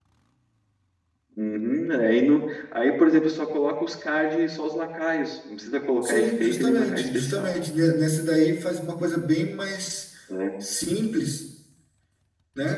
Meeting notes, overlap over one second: present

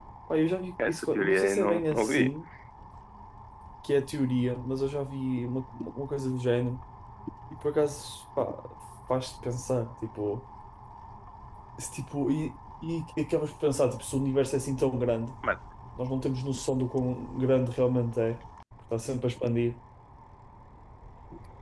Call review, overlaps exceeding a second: present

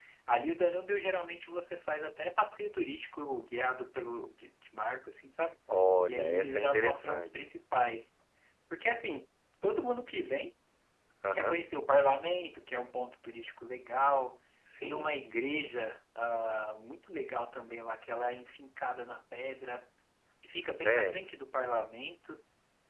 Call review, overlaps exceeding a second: present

